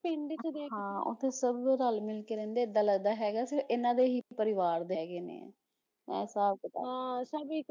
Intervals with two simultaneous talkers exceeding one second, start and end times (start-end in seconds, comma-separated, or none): none